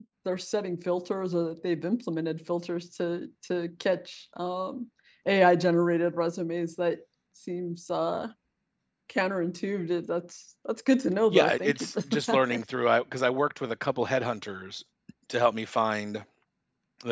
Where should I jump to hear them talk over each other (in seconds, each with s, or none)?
11.3 s